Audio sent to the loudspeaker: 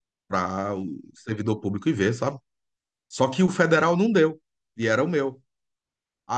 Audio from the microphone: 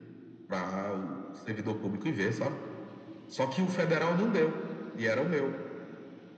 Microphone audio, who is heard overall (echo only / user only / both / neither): echo only